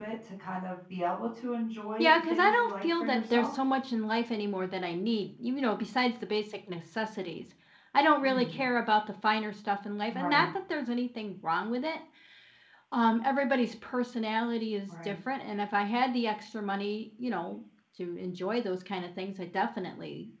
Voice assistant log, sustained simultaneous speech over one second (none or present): present